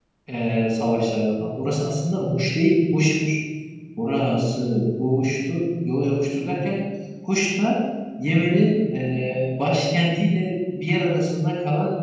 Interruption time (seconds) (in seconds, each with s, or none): none